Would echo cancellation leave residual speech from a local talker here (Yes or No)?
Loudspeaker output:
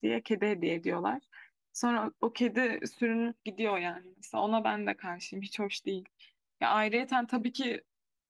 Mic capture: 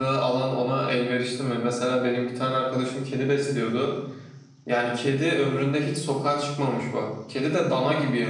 Yes